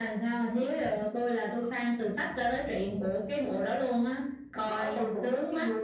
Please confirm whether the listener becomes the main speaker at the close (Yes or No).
Yes